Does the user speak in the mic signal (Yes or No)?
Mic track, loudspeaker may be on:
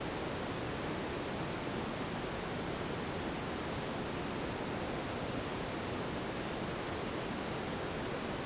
No